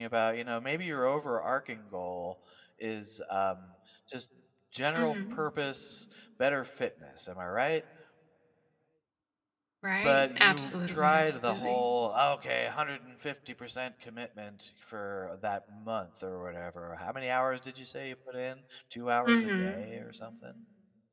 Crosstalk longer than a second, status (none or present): present